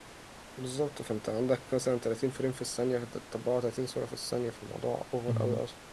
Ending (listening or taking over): taking over